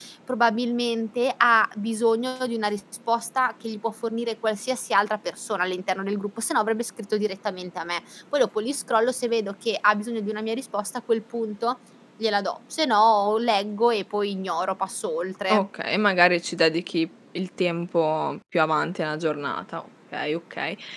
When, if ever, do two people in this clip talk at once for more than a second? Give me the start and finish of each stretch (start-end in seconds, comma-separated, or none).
none